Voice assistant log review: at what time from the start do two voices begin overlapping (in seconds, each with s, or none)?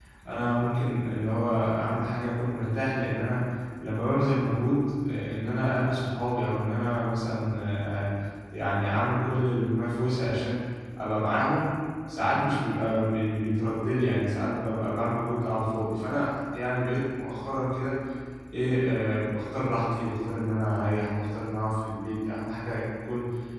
none